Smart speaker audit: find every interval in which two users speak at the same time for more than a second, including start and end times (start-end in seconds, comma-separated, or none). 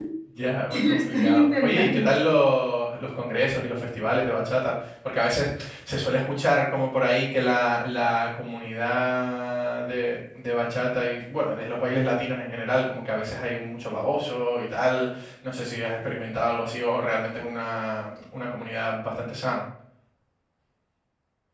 0.7-2.1